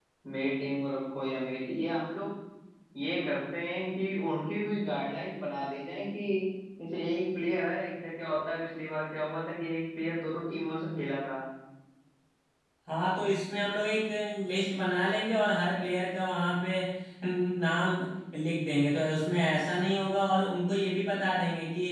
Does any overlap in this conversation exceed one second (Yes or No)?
No